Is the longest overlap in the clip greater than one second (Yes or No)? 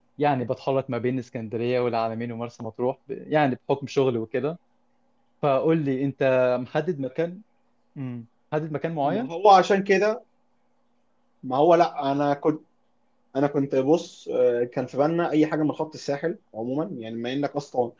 No